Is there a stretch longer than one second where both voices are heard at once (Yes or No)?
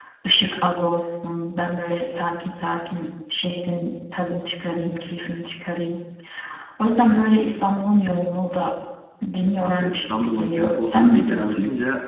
Yes